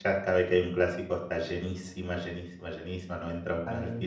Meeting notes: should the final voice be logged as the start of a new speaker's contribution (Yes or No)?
No